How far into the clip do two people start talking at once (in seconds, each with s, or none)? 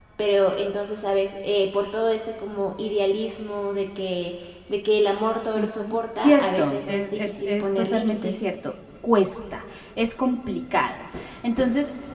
5.6 s